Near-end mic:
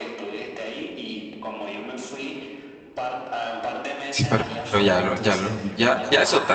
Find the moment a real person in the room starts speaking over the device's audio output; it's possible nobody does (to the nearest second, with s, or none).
4 s